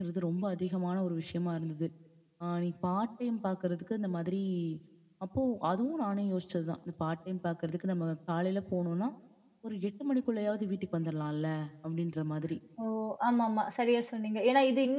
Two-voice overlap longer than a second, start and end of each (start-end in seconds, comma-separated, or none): none